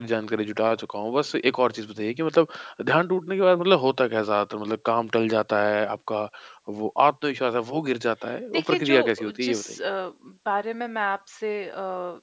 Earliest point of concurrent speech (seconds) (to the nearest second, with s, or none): 9 s